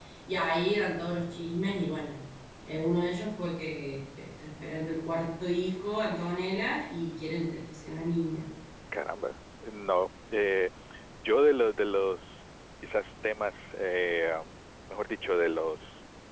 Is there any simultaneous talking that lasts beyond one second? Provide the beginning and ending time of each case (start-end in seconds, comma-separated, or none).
none